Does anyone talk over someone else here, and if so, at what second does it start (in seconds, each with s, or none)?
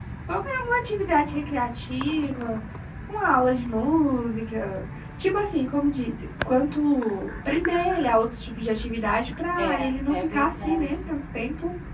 9.6 s